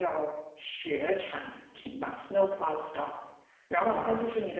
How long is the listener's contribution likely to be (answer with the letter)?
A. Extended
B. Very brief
B